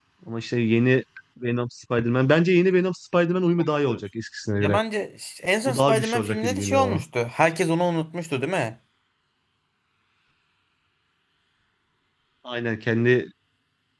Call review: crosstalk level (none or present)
present